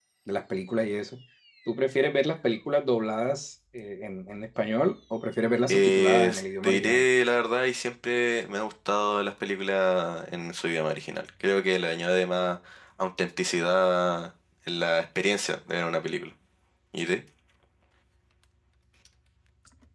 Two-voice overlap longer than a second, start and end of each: 5.7-7.0

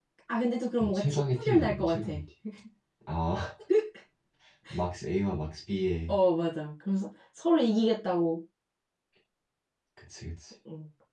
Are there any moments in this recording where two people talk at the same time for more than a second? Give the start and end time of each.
0.8-2.1

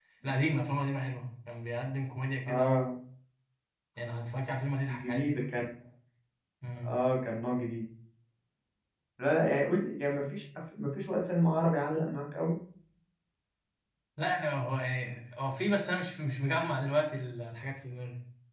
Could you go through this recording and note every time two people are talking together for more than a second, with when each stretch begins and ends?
none

